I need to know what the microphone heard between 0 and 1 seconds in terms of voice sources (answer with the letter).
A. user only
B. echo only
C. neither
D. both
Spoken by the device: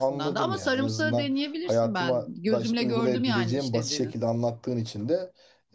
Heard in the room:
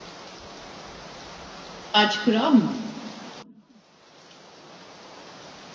C